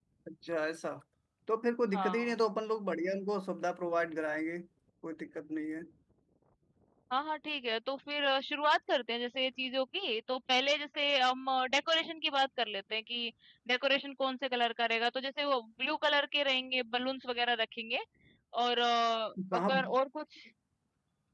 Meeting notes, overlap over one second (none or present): none